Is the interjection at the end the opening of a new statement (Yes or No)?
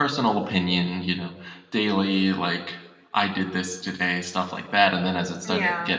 No